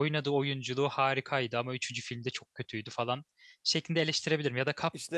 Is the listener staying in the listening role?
Yes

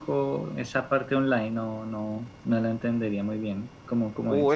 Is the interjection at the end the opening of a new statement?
Yes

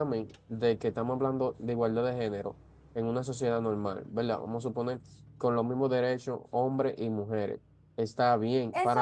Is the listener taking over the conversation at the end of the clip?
No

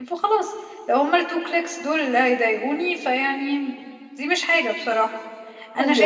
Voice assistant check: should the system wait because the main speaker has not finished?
No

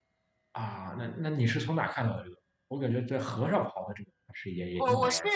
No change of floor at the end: No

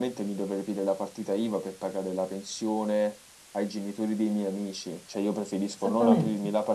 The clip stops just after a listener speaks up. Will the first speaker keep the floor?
Yes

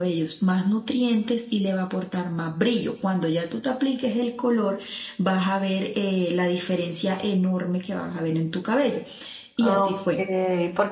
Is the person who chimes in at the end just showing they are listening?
No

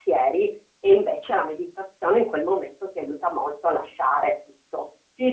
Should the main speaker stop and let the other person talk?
Yes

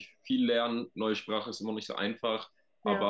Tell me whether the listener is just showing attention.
Yes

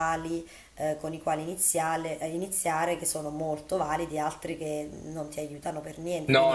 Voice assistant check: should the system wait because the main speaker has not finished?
No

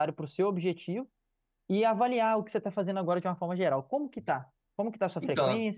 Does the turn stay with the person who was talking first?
No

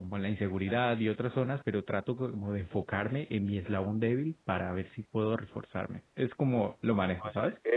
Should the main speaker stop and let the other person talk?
Yes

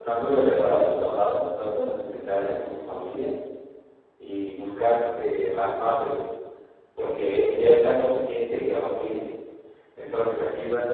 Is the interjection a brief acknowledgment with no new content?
Yes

